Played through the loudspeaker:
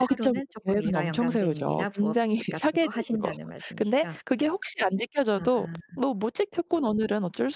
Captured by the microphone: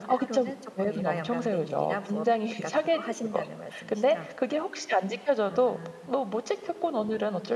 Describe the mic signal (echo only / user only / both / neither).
echo only